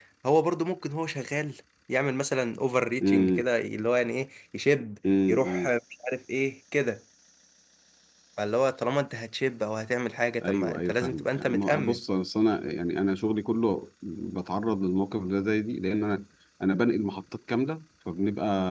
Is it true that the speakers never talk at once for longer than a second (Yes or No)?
No